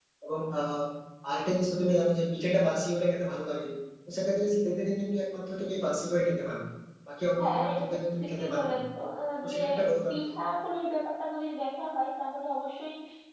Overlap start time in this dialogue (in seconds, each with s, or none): 7.4 s